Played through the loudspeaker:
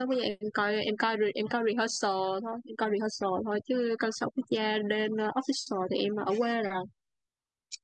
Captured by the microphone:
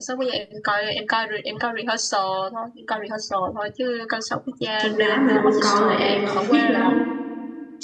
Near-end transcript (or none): con gái mà đô con là em không thích lắm